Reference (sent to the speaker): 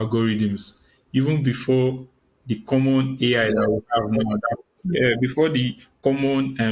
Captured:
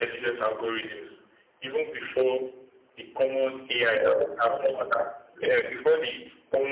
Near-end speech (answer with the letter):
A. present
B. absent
B